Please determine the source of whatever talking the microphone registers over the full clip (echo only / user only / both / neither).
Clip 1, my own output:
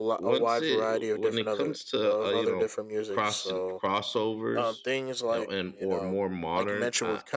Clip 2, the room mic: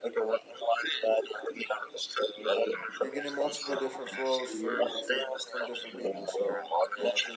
both